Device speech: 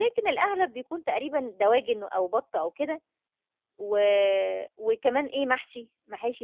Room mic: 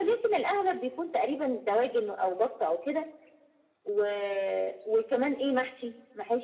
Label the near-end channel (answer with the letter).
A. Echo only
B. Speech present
A